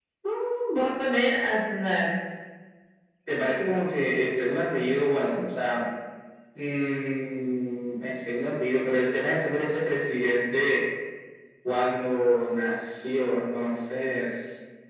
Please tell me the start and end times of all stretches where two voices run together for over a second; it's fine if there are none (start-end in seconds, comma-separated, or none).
none